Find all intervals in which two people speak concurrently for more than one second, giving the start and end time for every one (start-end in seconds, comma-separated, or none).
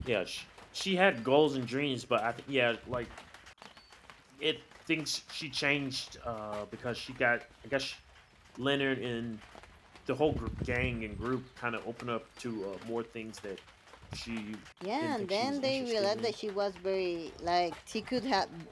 15.0-16.3